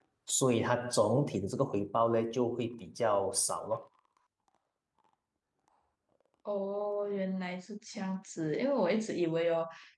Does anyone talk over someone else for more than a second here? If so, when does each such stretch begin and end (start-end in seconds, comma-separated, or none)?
none